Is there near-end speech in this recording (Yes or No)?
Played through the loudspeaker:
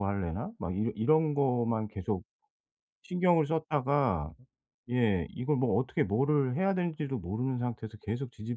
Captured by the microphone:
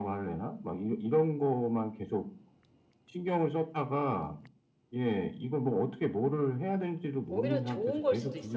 Yes